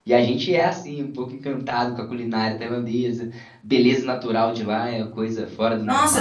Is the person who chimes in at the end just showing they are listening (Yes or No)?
No